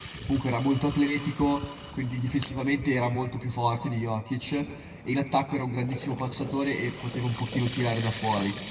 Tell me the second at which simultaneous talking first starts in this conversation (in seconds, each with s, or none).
none